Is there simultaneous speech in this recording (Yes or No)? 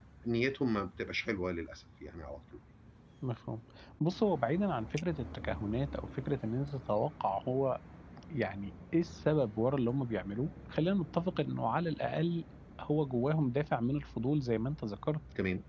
No